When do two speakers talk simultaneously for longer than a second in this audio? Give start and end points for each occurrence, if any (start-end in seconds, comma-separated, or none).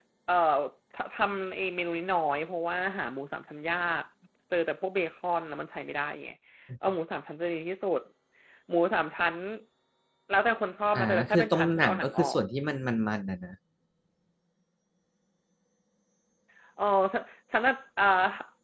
10.9-12.4